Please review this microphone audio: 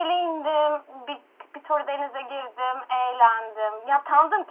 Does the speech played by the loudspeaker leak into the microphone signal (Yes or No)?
Yes